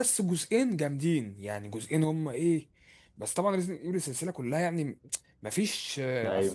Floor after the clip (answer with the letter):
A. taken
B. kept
B